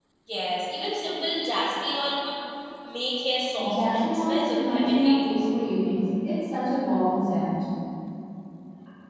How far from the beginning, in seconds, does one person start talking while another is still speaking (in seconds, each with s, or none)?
3.6 s